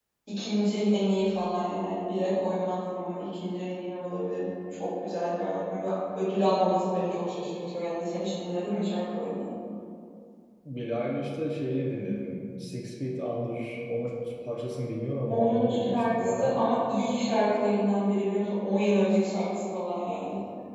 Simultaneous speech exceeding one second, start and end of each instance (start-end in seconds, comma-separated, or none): 15.3-16.6